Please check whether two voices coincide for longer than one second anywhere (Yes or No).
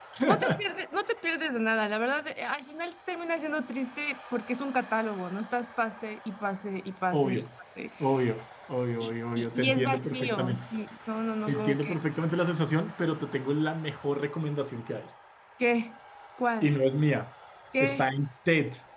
Yes